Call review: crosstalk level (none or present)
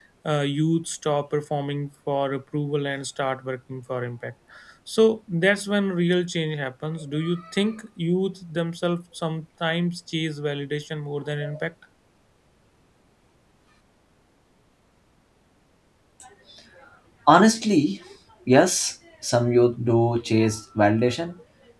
none